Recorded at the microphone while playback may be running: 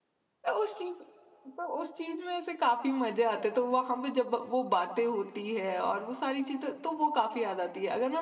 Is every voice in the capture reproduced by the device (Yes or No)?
No